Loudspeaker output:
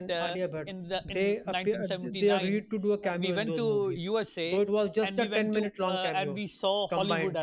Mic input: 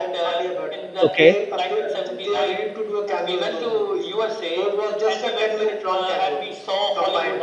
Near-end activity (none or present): present